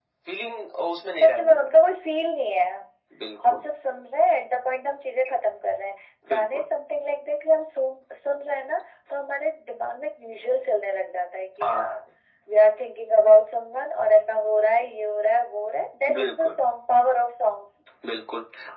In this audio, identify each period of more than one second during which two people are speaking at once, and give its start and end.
none

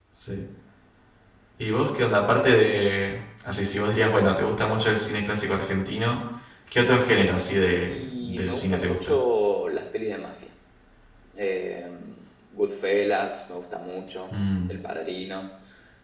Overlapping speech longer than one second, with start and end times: 7.9-9.2

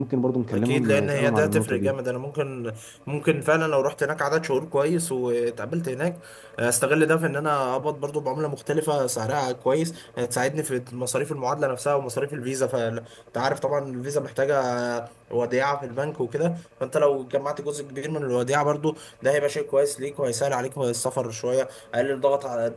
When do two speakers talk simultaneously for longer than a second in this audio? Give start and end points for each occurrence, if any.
0.5-2.0

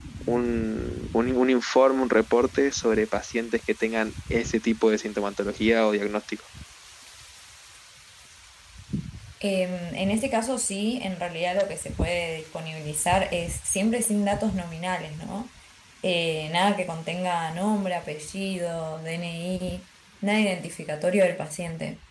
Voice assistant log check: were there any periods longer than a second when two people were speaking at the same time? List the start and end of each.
none

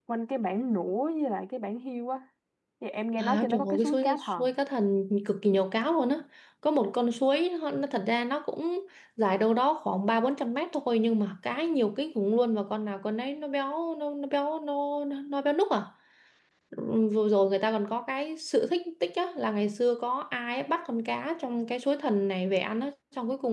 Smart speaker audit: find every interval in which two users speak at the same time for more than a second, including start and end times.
3.2-4.5

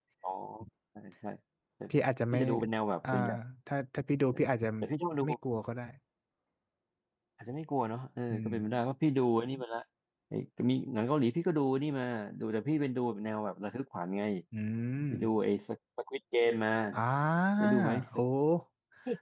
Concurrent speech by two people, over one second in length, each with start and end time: none

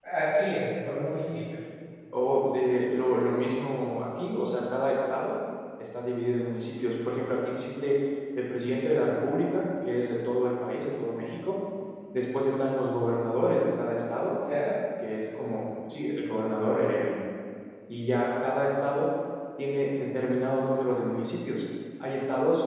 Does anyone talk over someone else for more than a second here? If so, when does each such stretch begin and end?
none

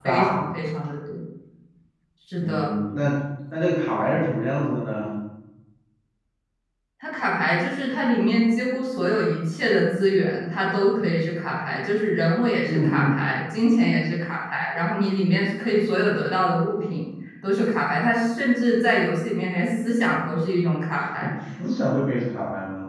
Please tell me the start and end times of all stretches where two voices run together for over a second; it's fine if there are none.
none

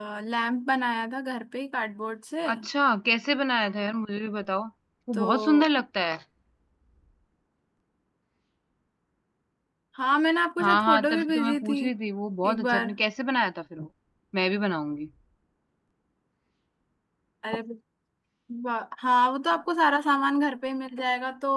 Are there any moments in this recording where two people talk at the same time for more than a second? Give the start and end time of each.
10.6-11.8

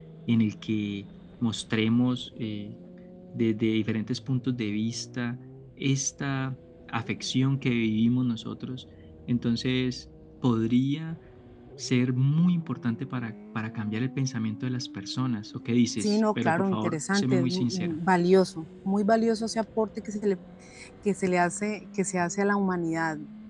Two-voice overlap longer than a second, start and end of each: 16.0-18.0

